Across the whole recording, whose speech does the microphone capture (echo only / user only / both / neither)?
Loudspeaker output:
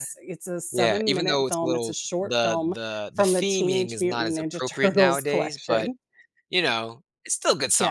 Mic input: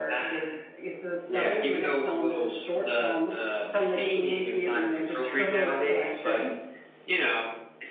echo only